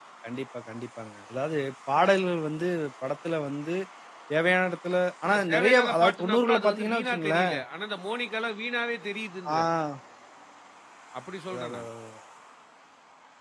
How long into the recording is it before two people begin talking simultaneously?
5 s

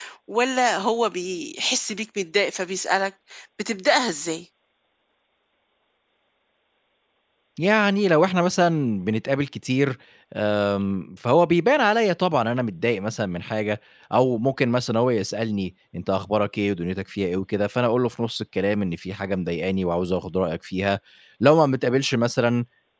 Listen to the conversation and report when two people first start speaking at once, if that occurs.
none

